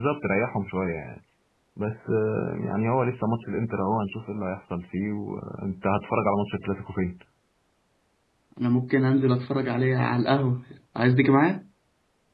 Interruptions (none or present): none